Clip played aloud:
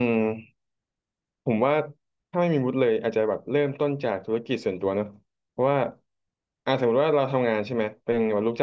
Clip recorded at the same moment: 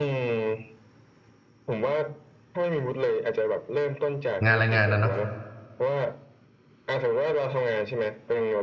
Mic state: both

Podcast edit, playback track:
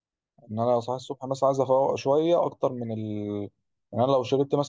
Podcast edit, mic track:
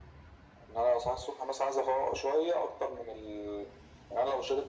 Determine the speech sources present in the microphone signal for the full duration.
echo only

